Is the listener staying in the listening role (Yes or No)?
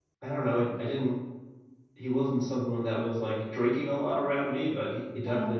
Yes